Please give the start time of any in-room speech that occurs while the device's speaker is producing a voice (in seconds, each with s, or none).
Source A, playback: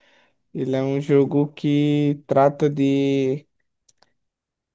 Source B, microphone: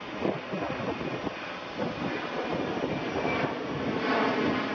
none